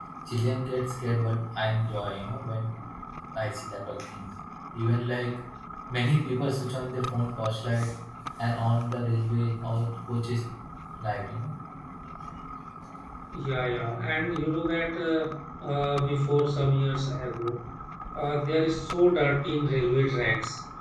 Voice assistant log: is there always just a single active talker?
Yes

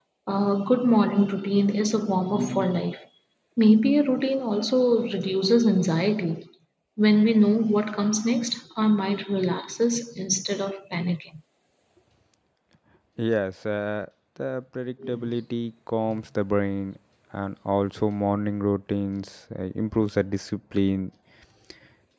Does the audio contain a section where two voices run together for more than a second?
No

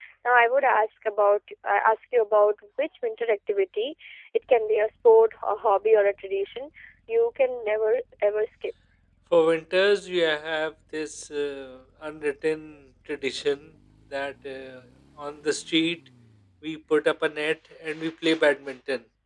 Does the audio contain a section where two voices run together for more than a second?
No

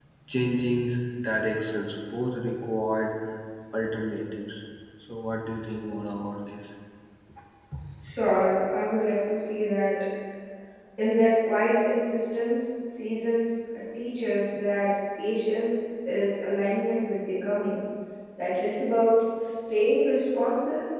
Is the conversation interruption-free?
Yes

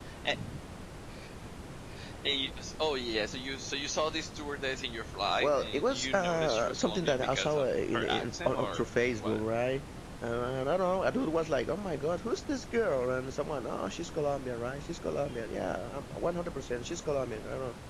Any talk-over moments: Yes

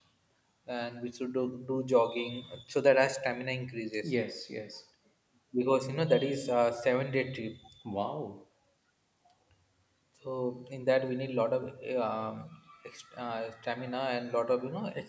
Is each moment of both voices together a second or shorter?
Yes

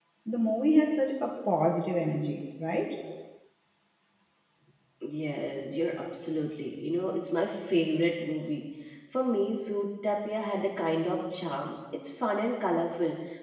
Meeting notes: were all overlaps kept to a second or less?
Yes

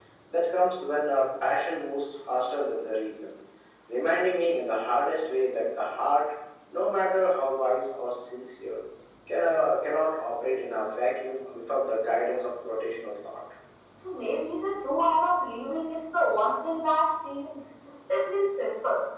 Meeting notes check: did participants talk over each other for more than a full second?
No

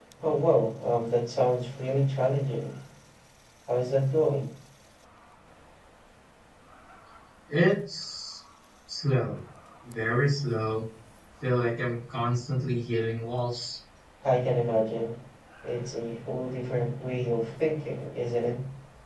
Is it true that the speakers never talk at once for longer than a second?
Yes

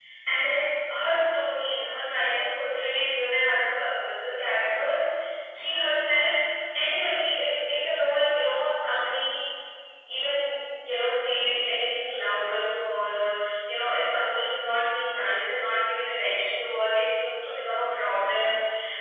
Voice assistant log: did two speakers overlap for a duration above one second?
No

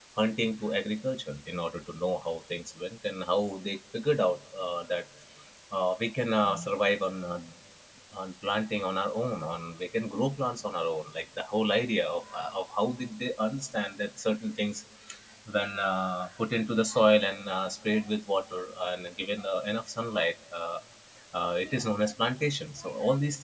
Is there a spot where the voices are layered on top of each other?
No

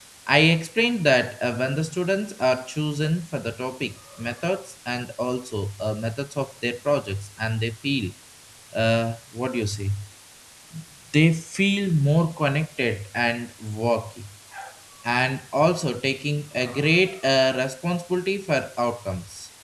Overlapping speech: No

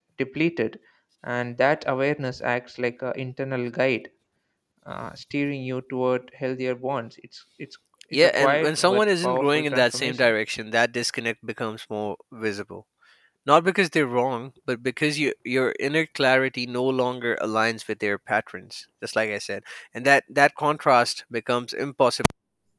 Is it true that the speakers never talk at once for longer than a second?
No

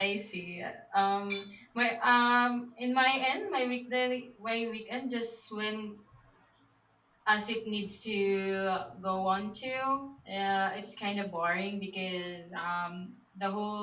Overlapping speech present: No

